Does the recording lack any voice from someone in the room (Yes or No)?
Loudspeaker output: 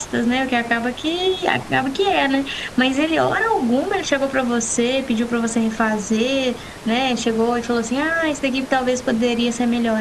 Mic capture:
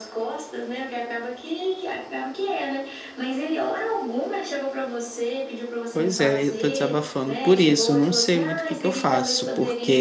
No